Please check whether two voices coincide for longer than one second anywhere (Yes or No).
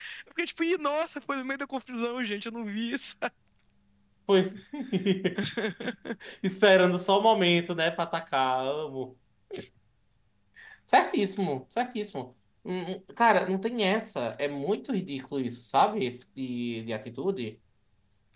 No